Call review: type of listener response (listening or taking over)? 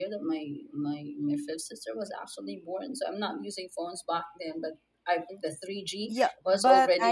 taking over